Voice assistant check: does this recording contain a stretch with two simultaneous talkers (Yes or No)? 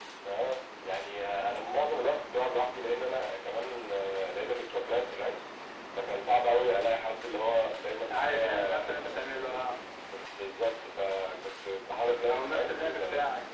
Yes